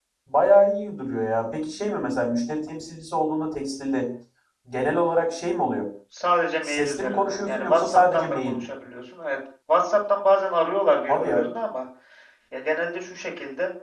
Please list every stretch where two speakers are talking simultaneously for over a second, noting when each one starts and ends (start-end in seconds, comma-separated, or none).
6.6-8.6